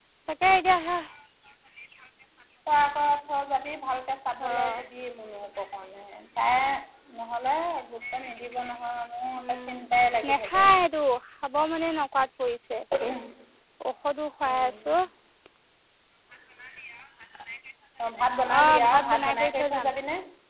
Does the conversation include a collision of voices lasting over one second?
Yes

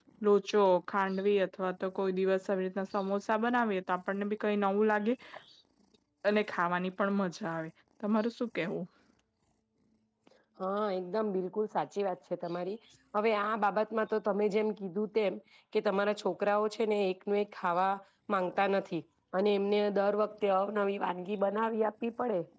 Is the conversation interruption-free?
Yes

